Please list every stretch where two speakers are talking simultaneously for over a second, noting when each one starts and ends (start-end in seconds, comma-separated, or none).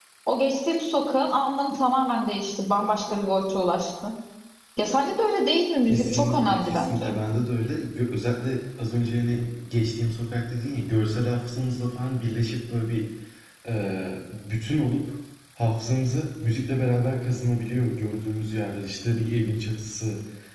5.9-7.1